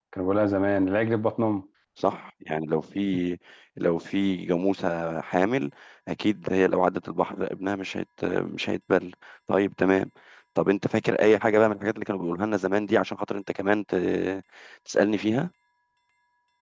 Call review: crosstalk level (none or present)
none